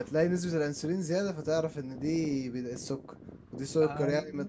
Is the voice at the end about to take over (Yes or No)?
No